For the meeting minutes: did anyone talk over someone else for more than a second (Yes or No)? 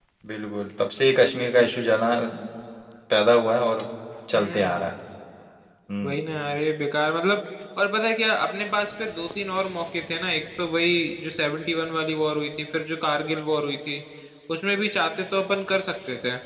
No